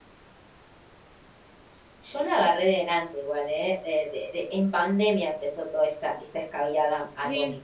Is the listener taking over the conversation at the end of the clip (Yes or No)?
Yes